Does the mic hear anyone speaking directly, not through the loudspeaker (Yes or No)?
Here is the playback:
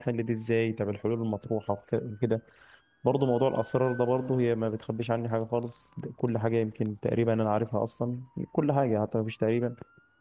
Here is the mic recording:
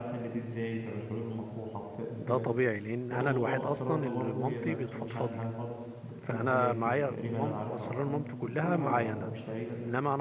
Yes